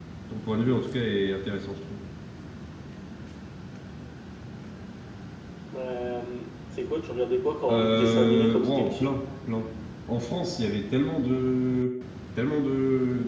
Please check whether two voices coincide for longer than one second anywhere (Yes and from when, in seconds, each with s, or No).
Yes, from 7.7 s